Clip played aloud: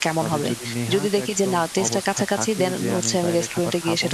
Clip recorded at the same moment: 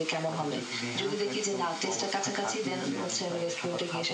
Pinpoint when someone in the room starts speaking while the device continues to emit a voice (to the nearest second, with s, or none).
none